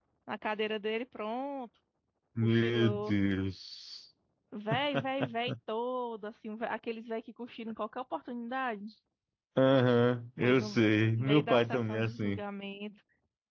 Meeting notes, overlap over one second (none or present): present